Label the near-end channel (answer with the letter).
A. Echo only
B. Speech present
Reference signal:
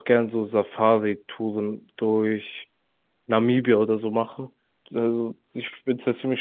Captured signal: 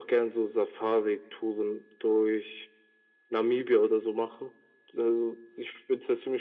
A